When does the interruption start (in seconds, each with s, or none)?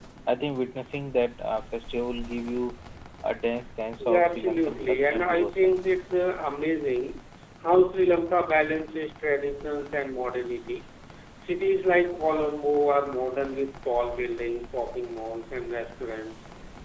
4.0 s